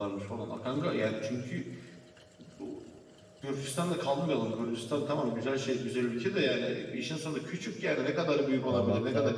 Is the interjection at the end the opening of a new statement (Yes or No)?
Yes